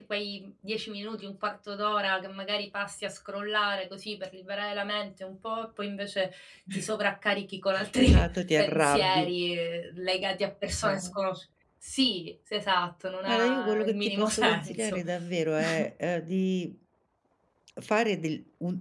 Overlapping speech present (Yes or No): Yes